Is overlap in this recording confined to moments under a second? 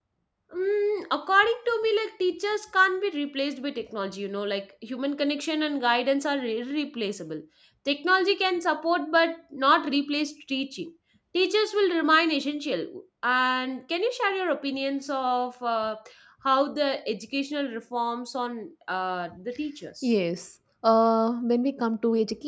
Yes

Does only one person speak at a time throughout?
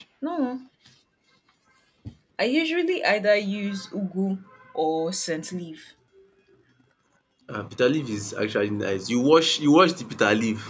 Yes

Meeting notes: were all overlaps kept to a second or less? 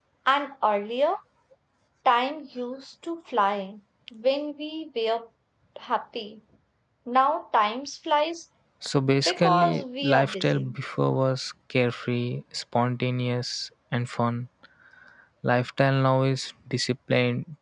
No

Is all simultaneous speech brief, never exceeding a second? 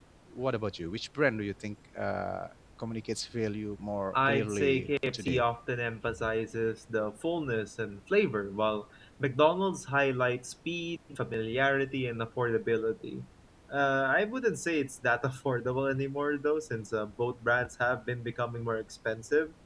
No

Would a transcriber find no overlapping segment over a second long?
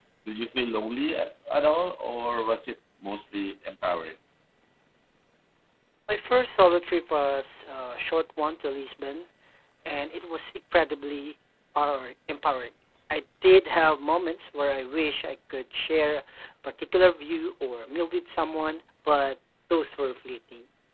Yes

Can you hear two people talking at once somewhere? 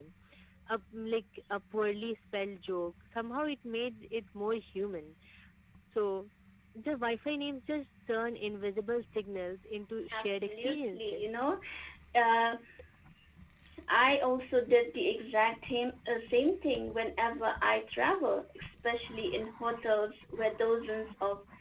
Yes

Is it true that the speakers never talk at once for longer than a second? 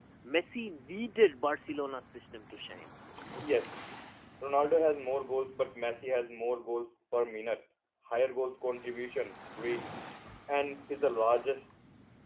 Yes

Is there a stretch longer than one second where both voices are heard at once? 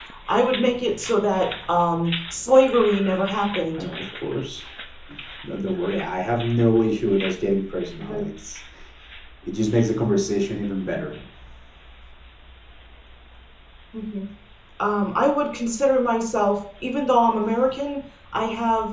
No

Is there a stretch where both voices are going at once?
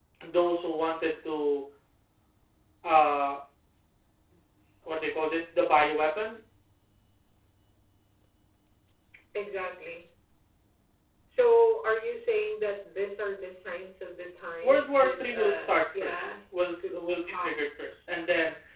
Yes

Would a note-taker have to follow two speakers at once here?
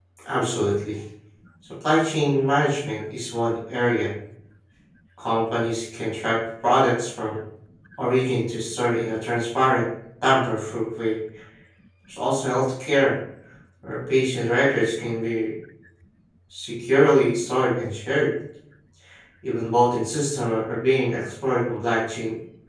No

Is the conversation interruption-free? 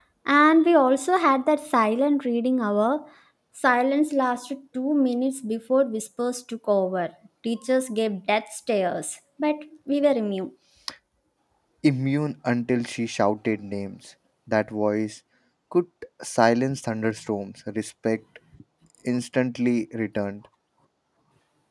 Yes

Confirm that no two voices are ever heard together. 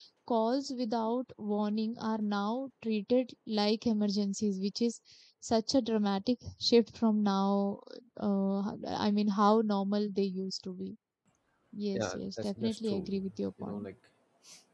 No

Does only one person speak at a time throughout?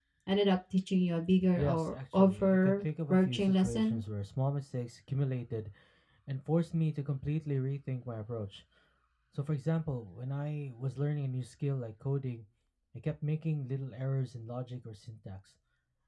No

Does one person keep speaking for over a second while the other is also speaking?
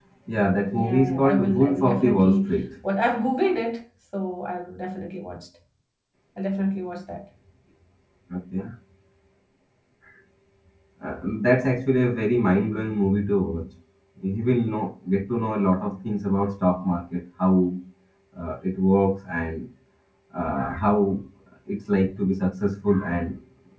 Yes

